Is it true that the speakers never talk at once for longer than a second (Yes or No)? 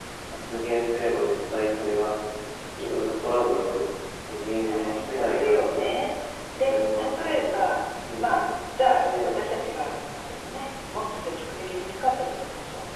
No